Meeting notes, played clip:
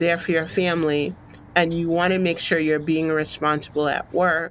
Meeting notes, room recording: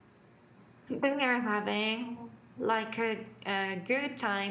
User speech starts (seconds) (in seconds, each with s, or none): 0.8 s